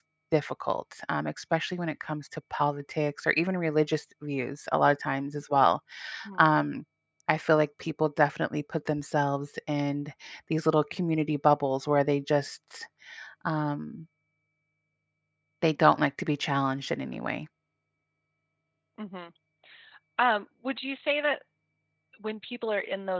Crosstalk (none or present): none